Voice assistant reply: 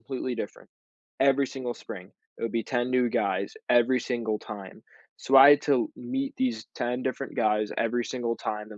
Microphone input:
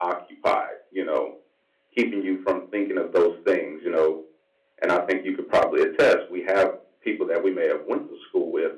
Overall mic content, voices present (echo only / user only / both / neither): user only